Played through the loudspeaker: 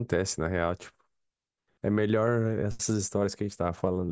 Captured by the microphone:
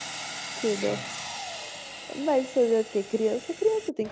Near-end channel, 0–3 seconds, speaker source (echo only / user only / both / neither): user only